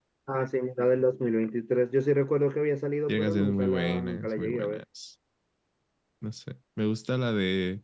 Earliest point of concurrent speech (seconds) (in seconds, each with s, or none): 3.1 s